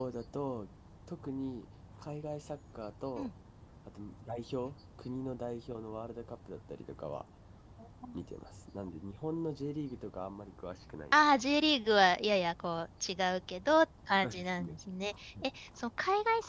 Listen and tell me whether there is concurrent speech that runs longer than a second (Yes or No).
No